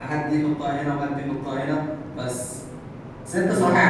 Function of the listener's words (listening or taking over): listening